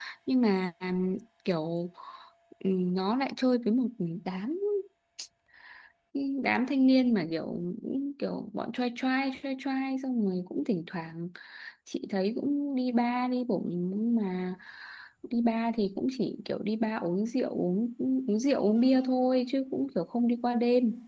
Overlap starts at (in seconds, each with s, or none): none